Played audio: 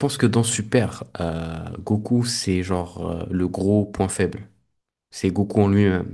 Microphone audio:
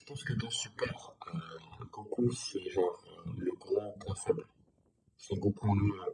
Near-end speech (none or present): none